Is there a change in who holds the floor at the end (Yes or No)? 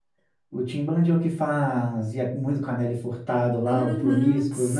Yes